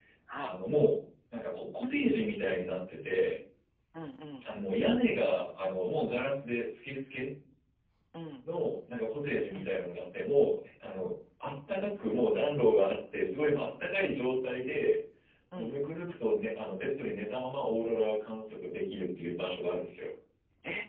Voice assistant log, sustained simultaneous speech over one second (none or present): none